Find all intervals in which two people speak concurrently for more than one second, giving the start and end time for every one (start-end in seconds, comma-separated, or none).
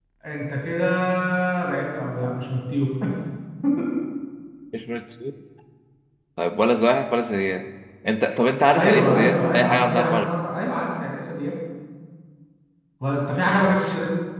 8.7-10.2